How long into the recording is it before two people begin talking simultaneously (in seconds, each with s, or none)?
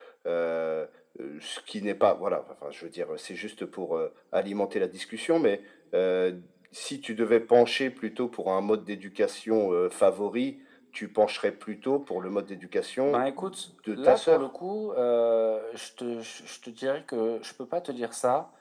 13.0 s